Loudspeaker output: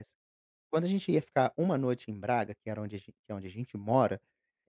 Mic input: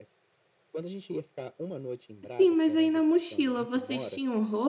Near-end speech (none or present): present